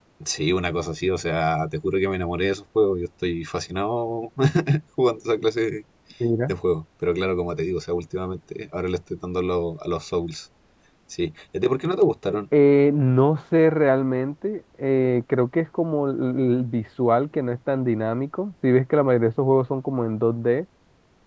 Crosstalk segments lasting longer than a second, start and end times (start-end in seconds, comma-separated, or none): none